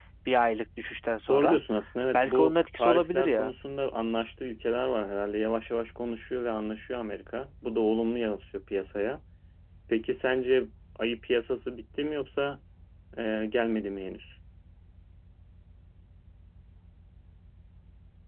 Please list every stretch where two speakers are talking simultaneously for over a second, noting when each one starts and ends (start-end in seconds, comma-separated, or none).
2.1-3.6